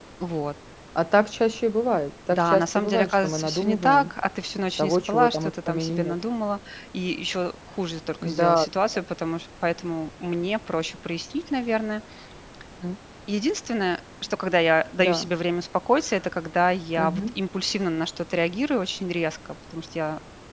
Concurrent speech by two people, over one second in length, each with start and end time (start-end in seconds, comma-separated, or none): 2.3-4.1, 4.8-6.2